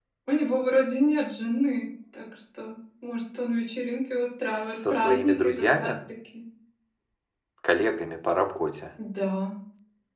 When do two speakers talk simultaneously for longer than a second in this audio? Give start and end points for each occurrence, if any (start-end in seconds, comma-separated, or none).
4.5-5.9